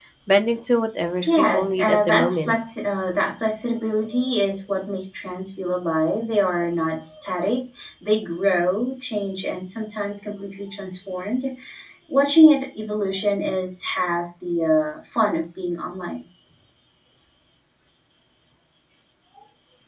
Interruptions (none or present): present